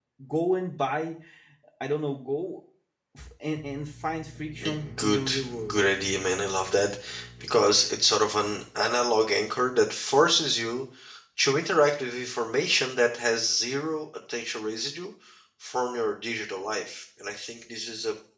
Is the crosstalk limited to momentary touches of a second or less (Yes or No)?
No